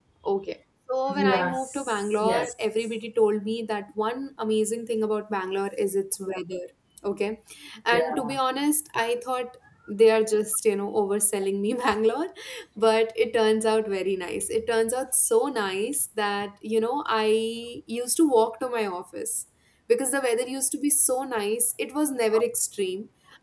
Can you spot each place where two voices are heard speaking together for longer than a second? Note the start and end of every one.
1.1-2.5

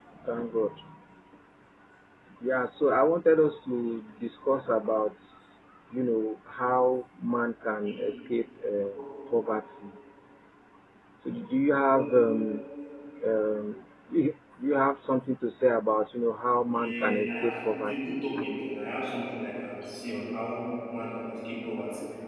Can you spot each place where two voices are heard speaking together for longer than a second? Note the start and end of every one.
16.7-18.0

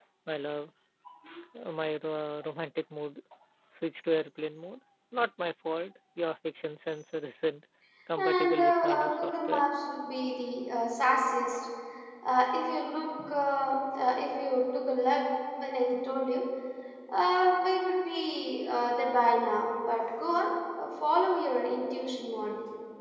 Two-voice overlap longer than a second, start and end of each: 8.2-9.6

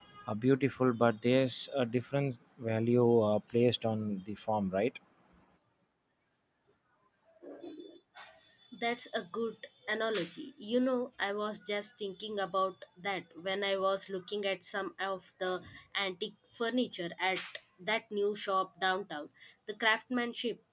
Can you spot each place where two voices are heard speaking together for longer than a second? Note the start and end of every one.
none

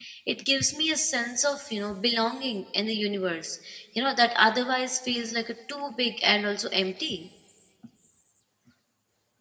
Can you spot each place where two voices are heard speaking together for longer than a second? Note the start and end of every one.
none

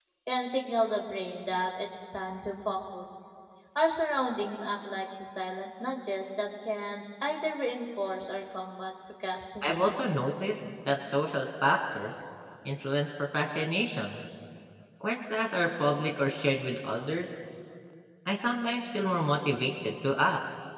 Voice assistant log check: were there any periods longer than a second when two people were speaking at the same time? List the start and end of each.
none

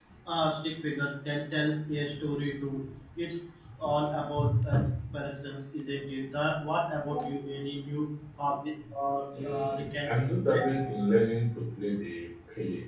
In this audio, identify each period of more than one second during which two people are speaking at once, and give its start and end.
9.4-11.0

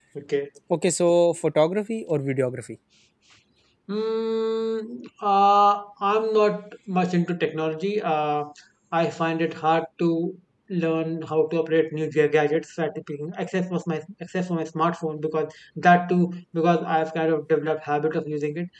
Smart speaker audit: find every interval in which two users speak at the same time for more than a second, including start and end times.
none

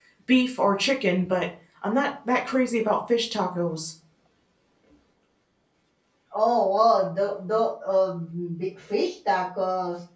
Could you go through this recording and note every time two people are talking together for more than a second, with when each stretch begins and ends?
none

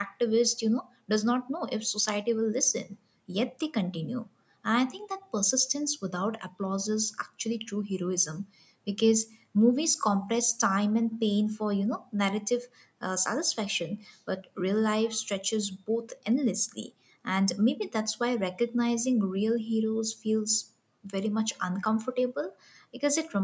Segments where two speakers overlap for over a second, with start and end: none

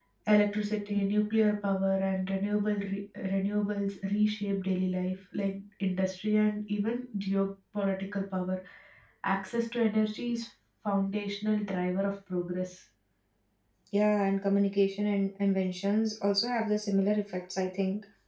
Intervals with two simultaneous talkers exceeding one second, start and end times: none

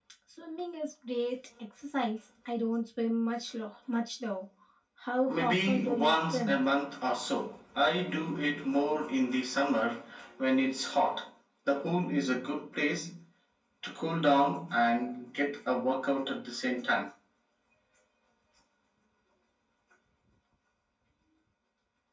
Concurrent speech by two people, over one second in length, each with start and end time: 5.3-6.6

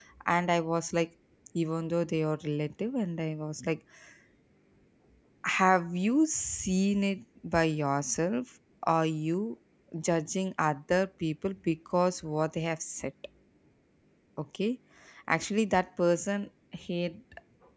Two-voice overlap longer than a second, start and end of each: none

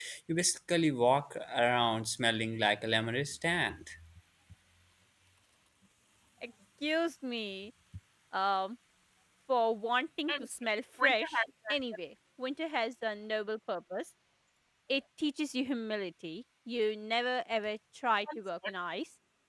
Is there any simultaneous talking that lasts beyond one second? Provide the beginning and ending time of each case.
none

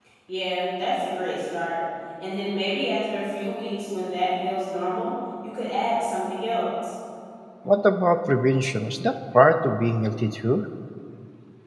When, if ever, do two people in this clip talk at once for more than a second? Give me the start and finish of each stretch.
none

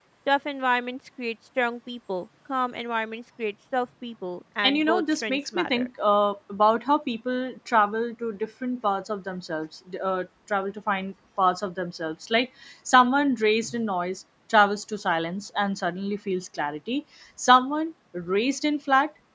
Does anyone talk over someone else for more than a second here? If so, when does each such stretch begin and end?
4.7-5.9

